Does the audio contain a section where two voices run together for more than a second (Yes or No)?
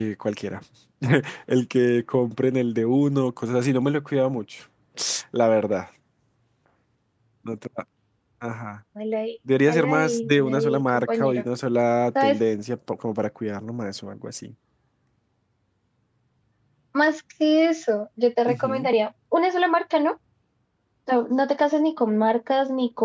Yes